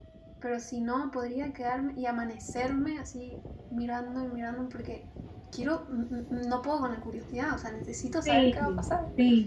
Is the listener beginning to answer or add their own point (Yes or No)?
Yes